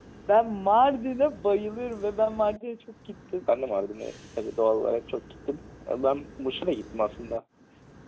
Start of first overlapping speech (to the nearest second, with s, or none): none